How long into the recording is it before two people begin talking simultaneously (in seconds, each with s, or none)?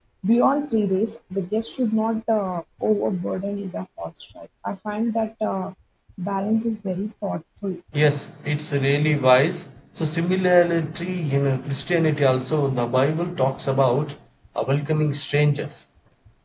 none